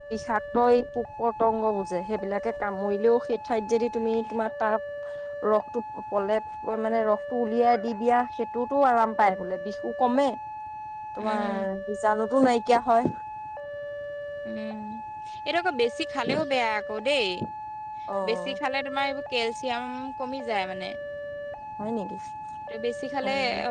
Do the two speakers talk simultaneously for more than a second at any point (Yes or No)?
No